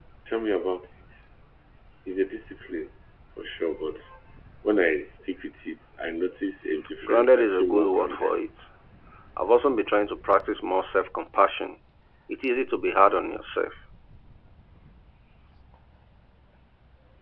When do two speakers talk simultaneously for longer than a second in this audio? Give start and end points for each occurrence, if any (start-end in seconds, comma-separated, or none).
7.0-8.3